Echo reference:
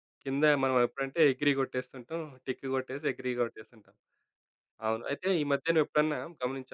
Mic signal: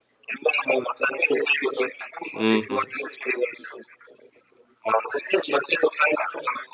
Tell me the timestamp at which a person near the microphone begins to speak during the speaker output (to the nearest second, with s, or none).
2 s